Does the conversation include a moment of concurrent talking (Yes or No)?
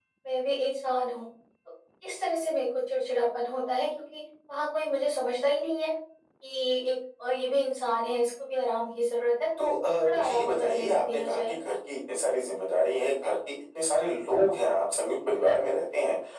Yes